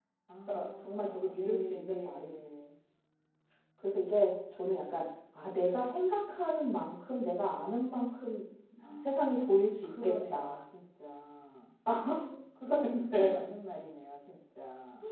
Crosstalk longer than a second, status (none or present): present